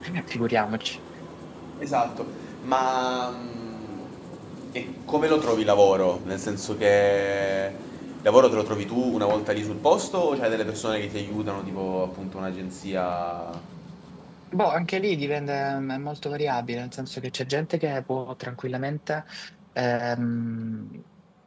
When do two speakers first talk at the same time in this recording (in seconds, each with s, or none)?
none